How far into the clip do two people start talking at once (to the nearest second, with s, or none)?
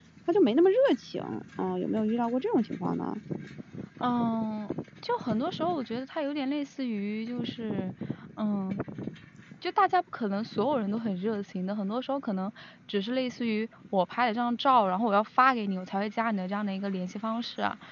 none